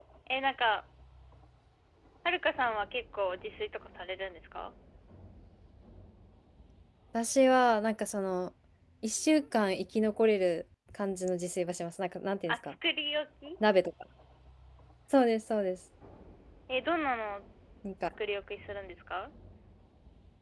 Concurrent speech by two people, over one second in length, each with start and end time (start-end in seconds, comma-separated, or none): none